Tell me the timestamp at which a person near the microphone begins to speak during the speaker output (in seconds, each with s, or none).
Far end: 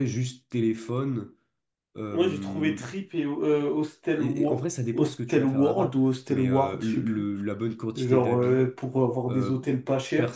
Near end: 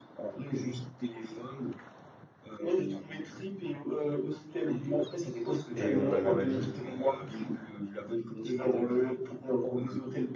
5.7 s